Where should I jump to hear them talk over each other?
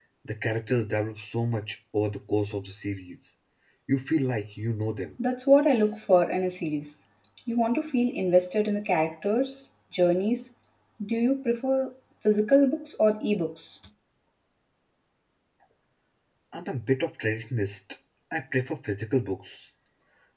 none

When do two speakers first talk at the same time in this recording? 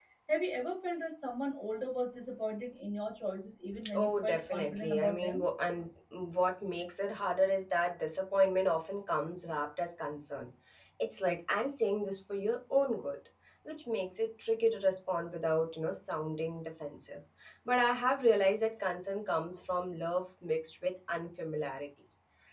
4 s

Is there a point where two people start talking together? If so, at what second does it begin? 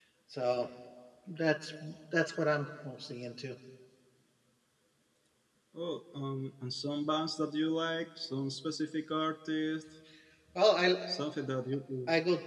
none

